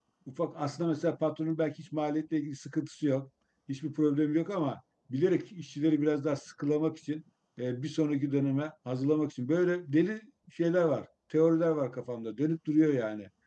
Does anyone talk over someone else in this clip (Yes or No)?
No